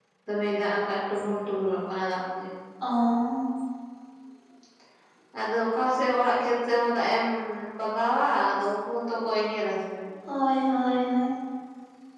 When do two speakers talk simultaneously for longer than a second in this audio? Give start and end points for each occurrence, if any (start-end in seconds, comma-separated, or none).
none